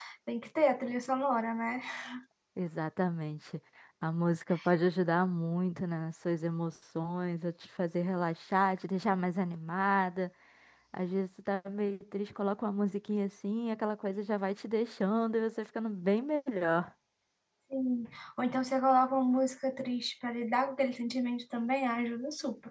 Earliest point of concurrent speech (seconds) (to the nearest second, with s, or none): none